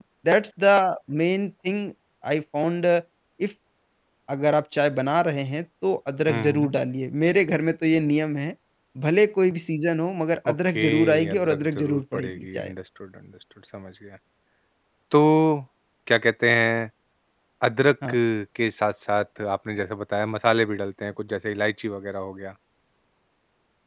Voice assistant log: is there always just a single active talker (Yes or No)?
No